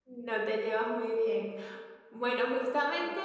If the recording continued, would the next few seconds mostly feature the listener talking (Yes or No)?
No